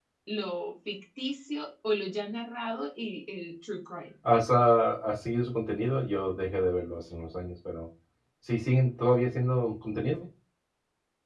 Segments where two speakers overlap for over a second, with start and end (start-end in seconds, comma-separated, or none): none